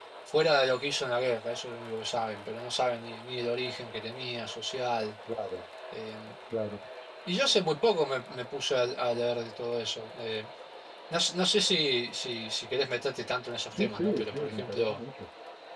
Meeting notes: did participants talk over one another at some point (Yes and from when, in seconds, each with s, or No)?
Yes, from 13.7 s